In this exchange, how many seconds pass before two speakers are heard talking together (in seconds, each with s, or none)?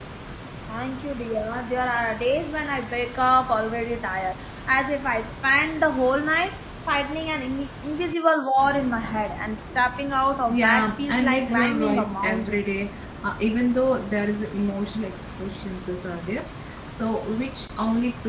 10.5 s